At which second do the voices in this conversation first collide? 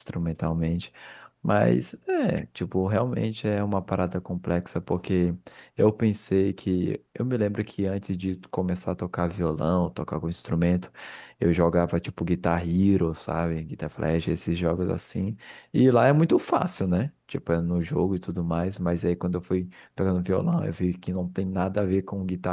none

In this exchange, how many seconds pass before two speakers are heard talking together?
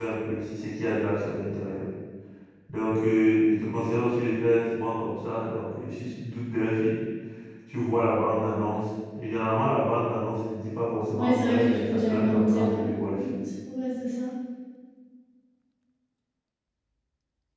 11.1 s

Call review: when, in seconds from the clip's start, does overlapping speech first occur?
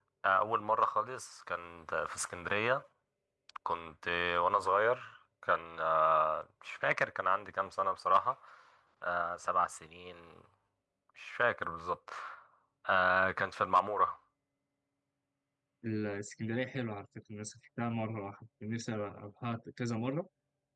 none

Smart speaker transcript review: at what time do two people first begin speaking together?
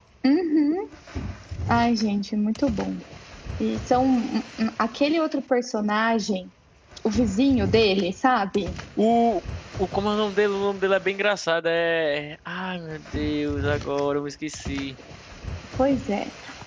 none

